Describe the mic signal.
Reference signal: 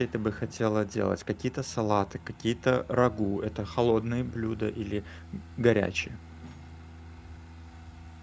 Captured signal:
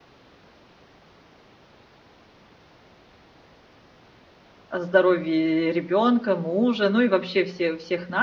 user only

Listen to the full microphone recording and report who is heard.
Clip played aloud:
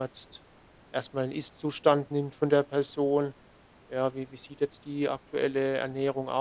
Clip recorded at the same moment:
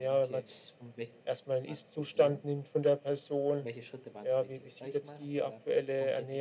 both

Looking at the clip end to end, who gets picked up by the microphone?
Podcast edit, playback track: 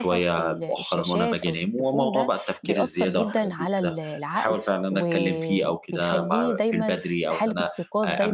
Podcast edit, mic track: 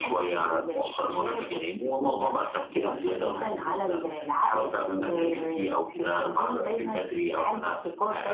both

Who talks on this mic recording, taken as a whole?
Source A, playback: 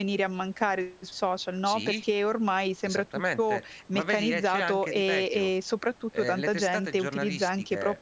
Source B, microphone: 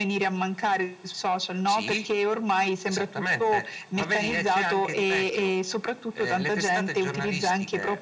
echo only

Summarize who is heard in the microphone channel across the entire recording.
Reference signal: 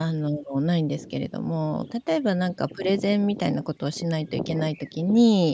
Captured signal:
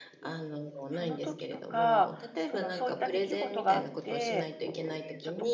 both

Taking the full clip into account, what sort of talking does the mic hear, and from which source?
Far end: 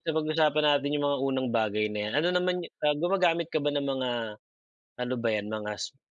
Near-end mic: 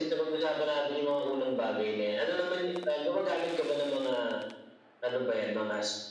echo only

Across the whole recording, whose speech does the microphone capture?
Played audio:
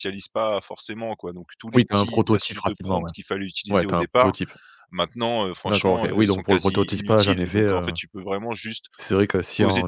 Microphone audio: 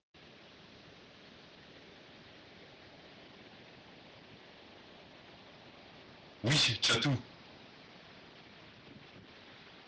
user only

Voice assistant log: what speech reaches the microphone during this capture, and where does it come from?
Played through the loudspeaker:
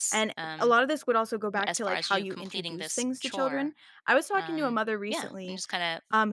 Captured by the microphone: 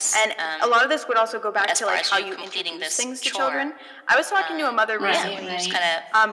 both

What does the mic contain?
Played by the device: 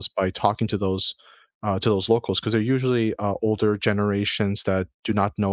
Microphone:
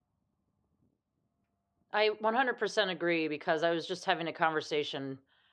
user only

